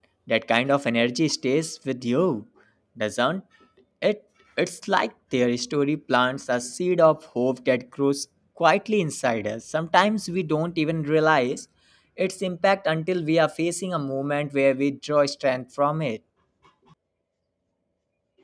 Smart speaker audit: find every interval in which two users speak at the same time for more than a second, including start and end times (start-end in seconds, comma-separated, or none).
none